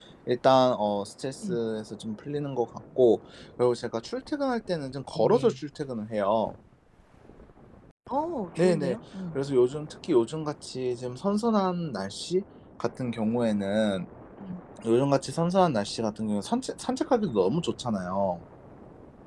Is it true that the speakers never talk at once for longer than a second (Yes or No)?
Yes